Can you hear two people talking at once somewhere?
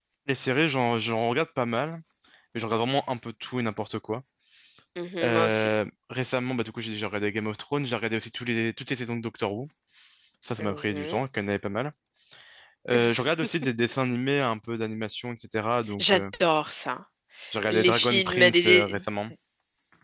Yes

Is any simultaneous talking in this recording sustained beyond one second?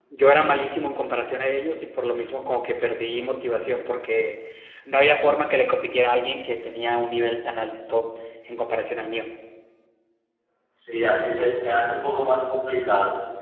No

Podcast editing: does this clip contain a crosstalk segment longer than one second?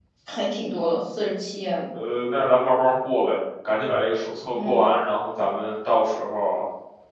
No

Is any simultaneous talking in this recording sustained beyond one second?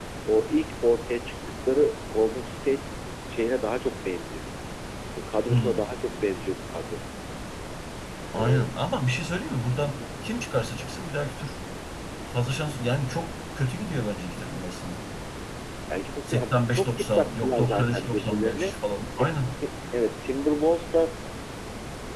Yes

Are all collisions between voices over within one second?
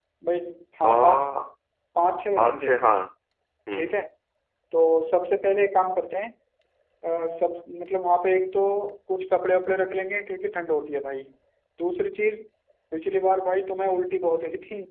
Yes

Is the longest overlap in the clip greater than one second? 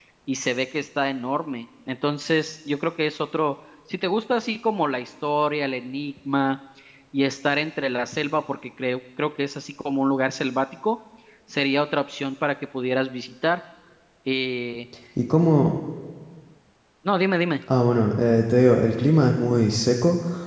No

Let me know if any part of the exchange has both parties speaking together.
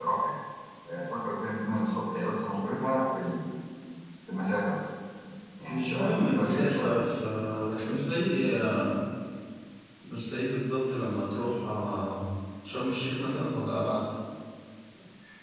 Yes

